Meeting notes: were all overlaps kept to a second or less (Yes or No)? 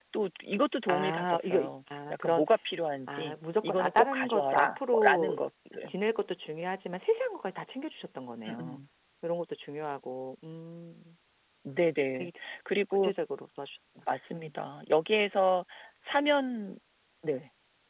No